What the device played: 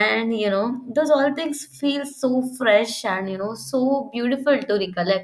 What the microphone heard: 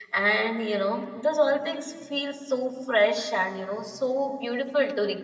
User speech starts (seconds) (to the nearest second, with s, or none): none